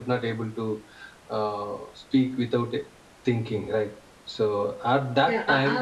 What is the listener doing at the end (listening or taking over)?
taking over